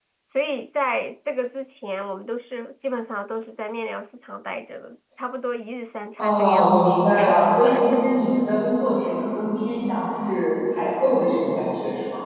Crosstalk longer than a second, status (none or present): present